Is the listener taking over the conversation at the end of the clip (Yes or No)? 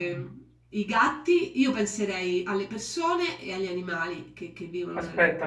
Yes